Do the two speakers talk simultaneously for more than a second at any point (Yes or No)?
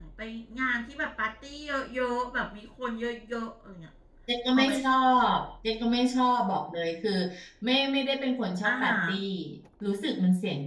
No